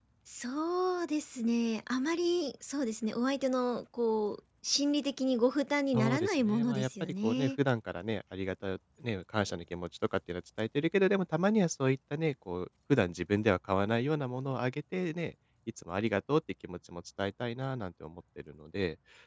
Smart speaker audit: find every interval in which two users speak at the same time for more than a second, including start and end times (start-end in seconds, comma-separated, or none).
5.9-7.5